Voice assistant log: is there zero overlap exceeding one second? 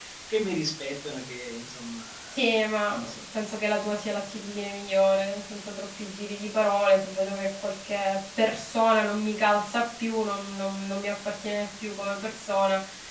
Yes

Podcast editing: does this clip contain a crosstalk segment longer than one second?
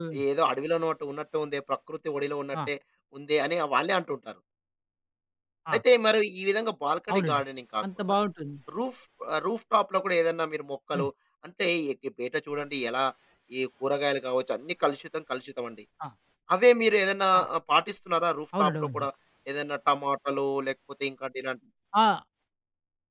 No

